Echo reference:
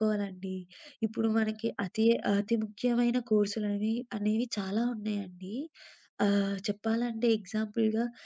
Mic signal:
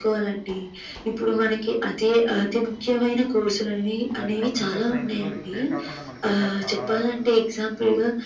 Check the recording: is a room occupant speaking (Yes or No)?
Yes